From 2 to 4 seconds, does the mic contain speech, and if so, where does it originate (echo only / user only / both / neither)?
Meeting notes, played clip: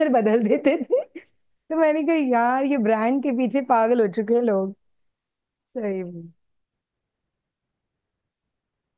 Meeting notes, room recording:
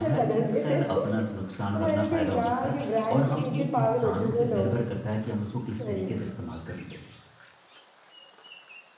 both